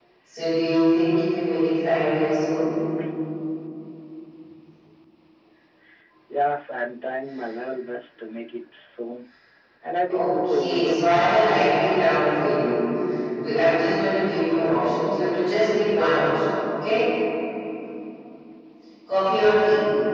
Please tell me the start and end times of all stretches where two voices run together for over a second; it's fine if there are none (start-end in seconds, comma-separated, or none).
10.1-11.3